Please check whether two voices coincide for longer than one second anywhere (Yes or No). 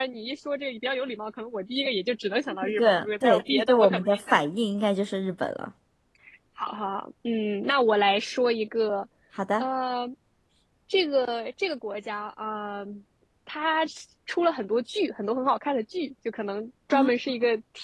Yes